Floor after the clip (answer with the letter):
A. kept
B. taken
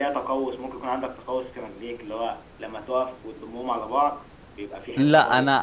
B